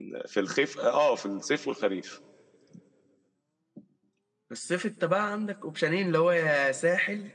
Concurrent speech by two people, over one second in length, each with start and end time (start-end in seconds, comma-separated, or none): none